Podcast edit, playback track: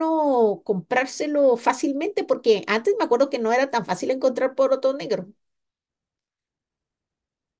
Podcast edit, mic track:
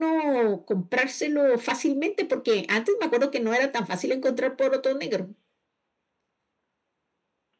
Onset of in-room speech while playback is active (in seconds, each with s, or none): none